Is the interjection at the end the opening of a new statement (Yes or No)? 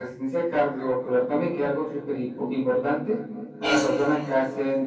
No